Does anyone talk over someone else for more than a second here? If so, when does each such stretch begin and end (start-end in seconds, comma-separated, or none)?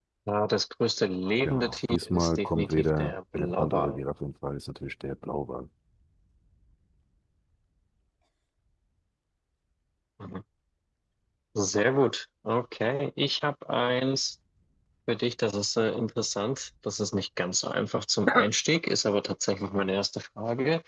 1.4-4.0